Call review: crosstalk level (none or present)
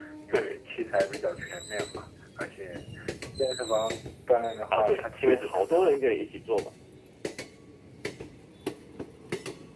present